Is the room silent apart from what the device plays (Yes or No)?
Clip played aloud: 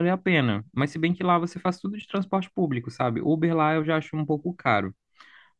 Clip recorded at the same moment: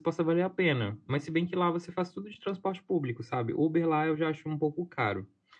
Yes